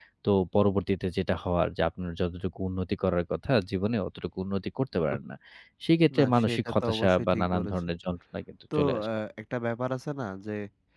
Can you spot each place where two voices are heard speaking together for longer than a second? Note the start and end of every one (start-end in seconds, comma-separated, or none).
6.2-7.7